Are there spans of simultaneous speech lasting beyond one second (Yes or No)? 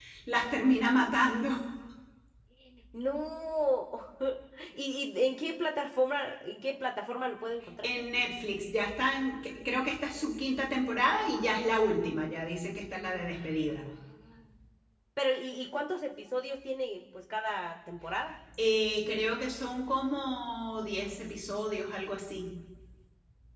No